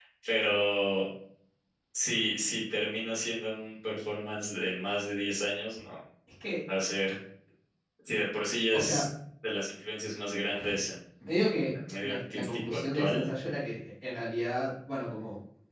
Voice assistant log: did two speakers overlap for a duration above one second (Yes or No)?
Yes